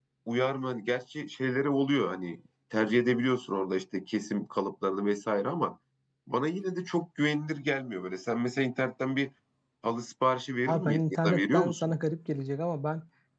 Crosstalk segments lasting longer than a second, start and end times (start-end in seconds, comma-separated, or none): 10.7-11.9